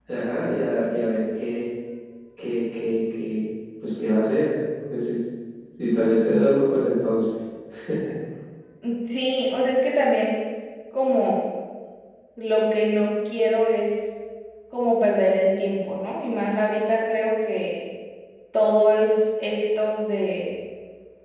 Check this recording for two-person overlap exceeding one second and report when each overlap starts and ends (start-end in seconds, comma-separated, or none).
none